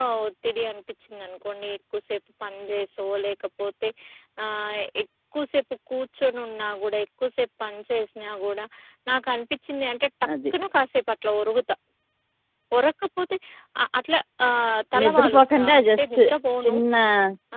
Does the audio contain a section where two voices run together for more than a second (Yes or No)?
Yes